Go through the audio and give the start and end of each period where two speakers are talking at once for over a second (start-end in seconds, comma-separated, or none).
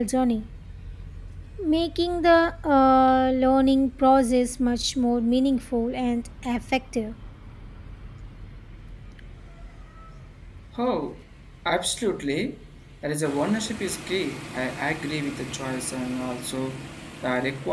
none